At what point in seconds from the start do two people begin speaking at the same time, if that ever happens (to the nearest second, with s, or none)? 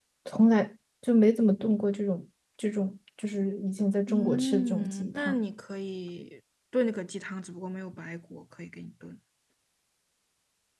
4 s